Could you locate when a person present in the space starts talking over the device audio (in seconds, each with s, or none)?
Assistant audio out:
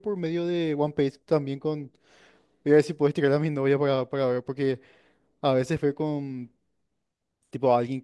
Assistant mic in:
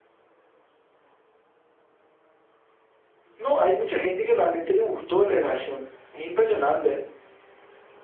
3.3 s